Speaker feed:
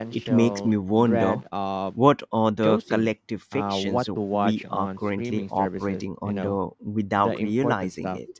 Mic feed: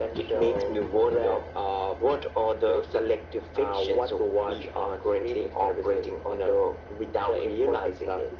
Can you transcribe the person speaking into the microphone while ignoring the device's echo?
none

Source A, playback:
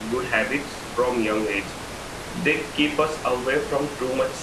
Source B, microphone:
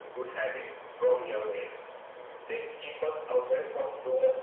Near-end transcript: none

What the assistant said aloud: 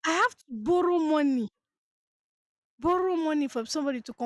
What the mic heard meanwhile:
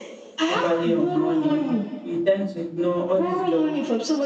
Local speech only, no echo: overly on money, we tend to ignore all these jobs

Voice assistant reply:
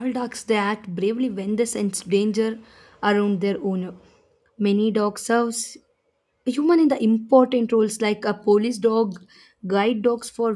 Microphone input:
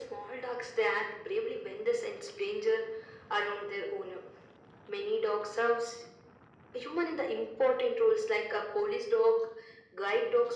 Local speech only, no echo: none

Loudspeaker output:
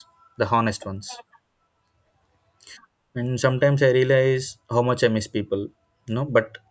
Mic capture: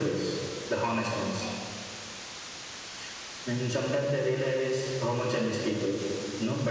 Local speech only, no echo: none

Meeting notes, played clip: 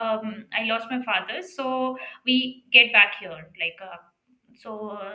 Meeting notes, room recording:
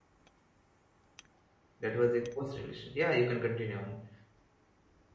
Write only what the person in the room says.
that was your first relationship. Yeah, you can continue on.

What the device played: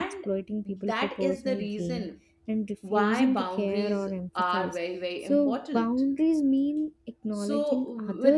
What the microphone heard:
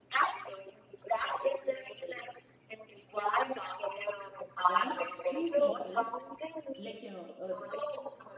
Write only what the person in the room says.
one two people like you know uh,

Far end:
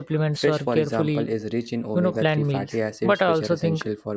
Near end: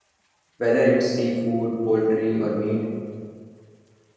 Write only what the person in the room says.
Whether it's seafood, poultry, or meat,

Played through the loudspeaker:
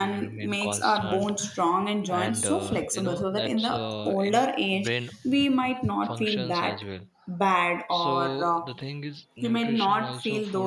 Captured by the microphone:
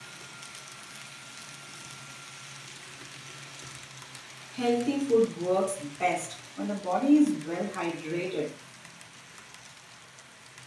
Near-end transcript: Healthy food works best when the body is well hydrated.

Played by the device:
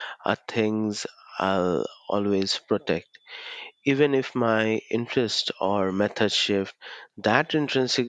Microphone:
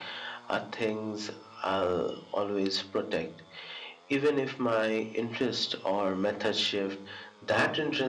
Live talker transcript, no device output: none

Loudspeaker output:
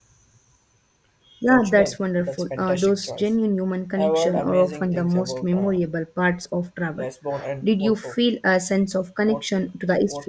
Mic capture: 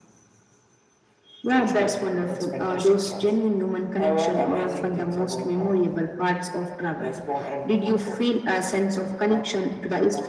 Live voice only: none

